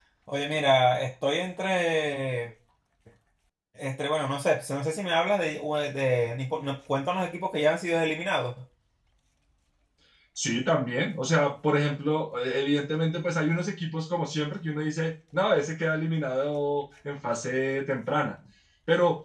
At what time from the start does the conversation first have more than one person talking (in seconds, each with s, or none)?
none